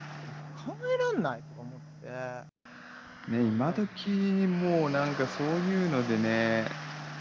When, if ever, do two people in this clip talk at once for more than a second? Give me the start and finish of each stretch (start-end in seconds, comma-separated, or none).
none